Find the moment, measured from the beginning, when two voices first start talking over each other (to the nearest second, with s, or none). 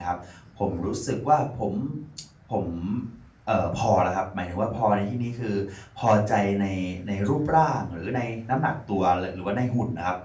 none